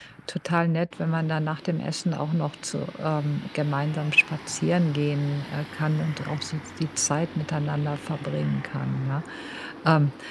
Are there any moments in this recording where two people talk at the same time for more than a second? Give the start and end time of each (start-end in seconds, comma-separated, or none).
none